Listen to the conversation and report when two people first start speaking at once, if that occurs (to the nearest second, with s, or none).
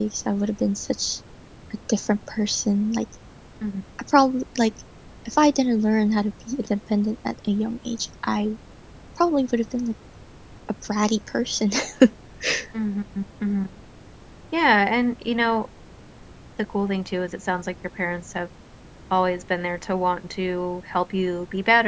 none